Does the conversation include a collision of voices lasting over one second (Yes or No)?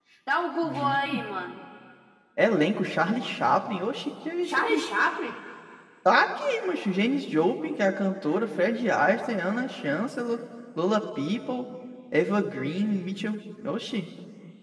No